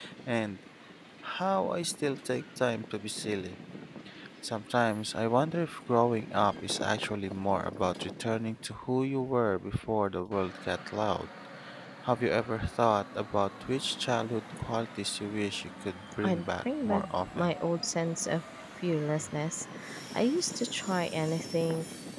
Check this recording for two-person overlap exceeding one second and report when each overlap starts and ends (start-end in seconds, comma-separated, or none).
16.2-17.5